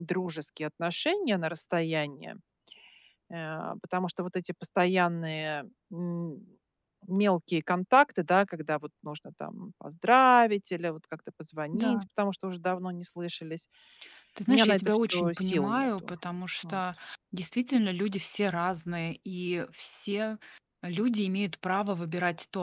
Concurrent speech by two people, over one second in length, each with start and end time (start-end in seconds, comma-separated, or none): 14.5-16.1